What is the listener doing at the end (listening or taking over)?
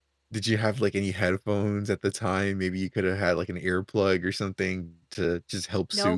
taking over